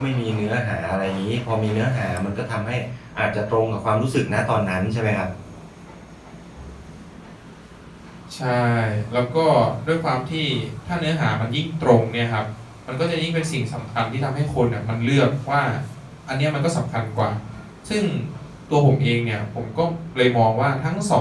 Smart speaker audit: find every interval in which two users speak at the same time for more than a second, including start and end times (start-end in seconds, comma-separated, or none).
none